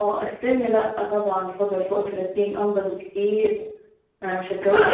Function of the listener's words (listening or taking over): taking over